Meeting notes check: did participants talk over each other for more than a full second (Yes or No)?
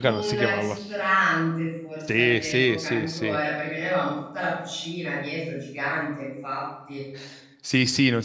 Yes